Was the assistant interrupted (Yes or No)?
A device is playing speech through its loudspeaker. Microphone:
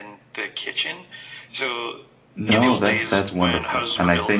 Yes